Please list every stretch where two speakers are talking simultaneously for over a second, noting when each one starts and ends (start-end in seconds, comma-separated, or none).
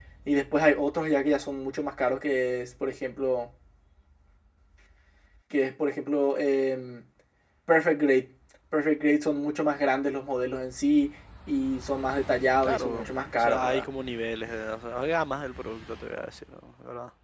12.6-13.8